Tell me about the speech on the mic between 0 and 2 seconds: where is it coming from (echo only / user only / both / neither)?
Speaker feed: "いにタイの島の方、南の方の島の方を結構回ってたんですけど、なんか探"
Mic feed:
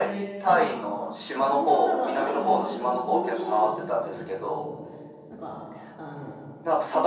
both